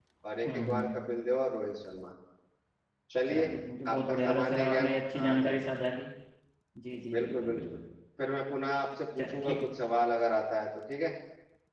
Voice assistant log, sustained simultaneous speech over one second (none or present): present